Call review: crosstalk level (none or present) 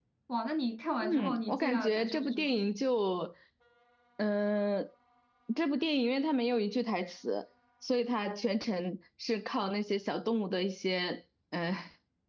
present